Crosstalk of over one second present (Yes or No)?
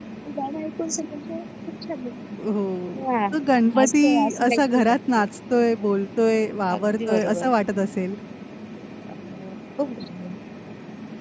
Yes